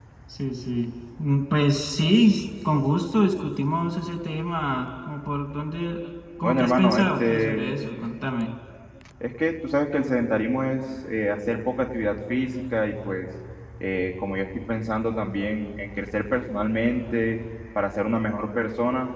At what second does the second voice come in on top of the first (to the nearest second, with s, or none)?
6 s